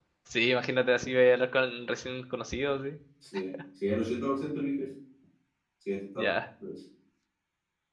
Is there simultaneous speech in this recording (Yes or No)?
No